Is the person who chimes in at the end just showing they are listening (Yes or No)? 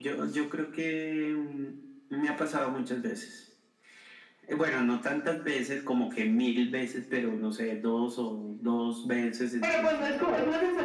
No